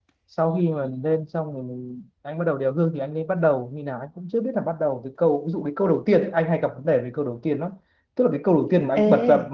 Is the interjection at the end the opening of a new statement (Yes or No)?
No